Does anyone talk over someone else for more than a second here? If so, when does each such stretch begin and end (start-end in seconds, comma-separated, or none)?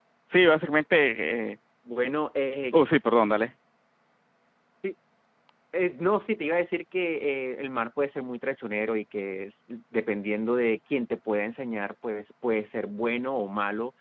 none